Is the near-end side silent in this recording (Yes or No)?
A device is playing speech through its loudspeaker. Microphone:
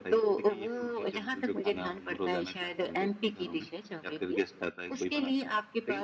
Yes